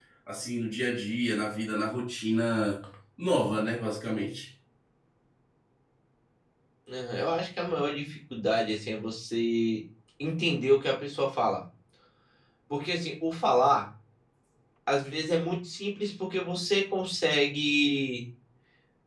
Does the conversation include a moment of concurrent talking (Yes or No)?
No